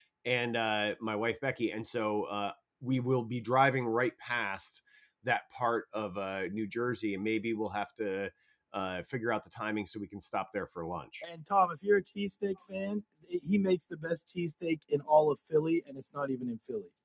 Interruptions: none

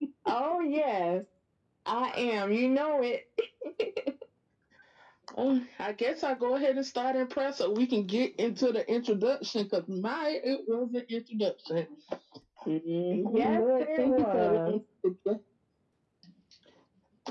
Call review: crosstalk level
present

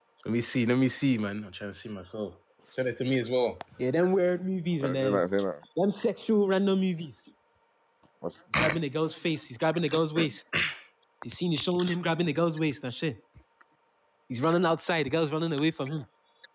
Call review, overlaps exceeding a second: none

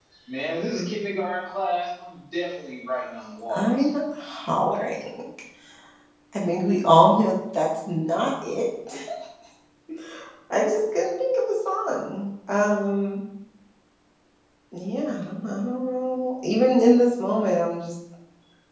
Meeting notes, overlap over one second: none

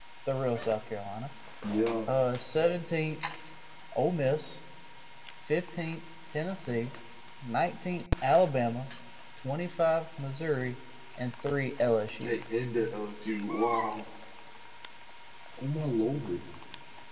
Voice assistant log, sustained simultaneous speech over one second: none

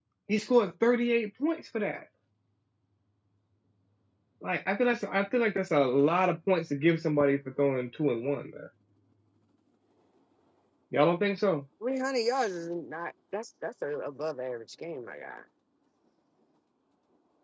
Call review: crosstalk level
none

